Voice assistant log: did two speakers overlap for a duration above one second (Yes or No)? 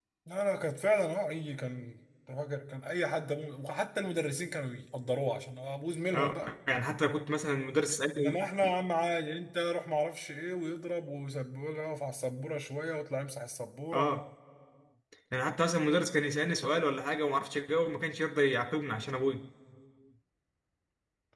No